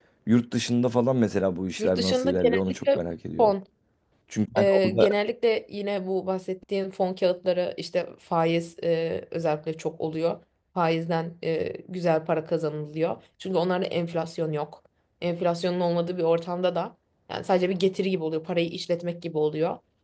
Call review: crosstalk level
present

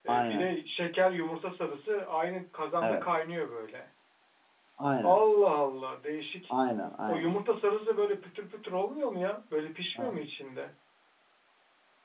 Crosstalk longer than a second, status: none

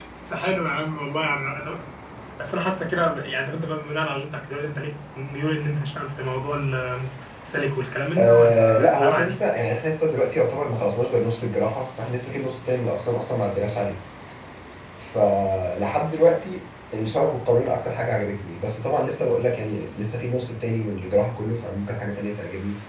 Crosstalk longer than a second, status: present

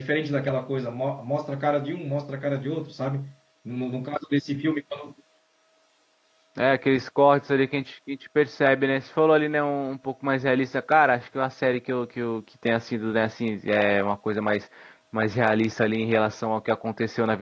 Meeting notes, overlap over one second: none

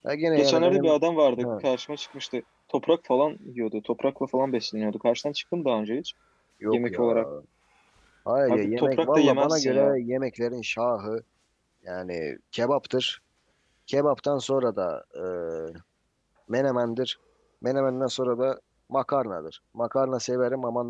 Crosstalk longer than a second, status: present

